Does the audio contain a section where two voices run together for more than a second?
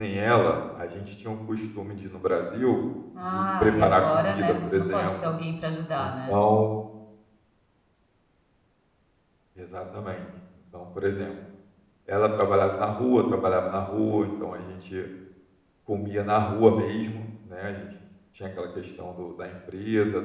Yes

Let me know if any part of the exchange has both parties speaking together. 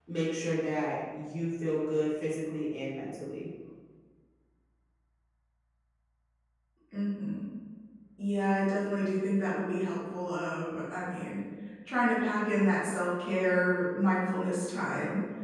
No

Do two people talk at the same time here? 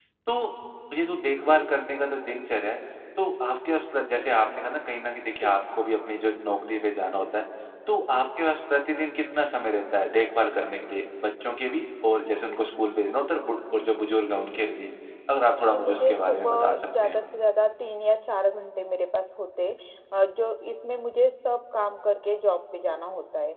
Yes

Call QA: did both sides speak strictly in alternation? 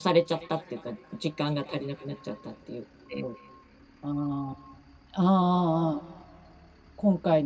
Yes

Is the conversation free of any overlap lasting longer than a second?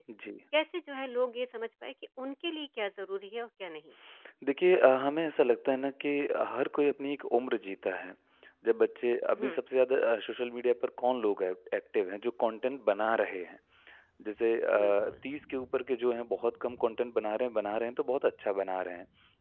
Yes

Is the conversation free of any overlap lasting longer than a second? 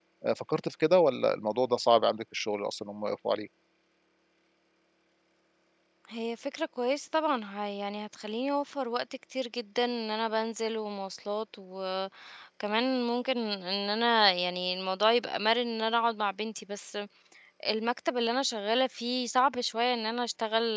Yes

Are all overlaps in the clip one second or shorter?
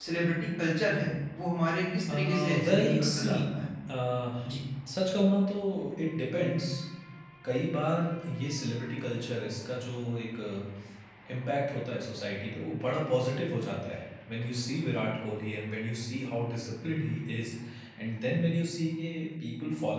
No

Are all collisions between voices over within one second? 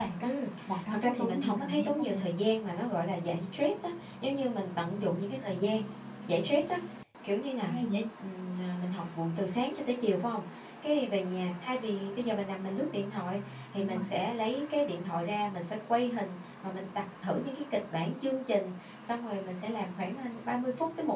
No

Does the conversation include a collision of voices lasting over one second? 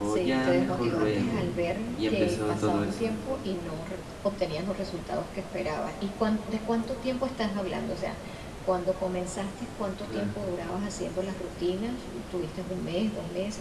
Yes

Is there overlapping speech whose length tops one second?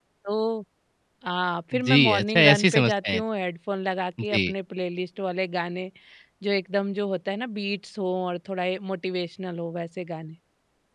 Yes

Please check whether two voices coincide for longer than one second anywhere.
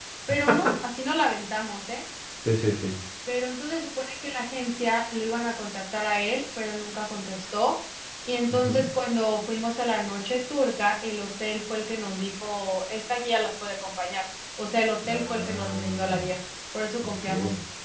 Yes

